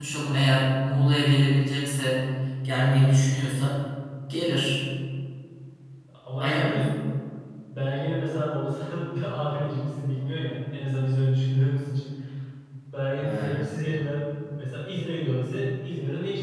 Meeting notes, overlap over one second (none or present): none